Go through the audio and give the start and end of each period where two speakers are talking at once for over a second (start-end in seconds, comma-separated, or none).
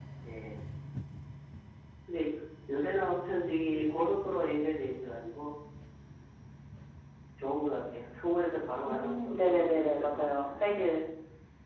8.8-10.8